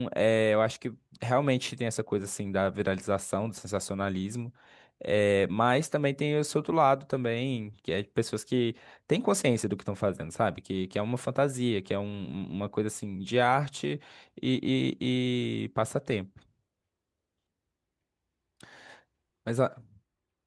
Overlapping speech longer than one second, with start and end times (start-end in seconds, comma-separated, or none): none